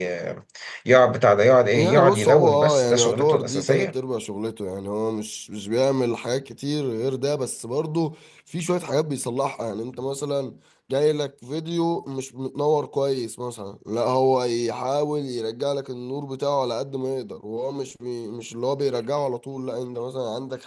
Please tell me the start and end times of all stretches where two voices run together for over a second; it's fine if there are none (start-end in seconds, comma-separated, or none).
1.8-3.9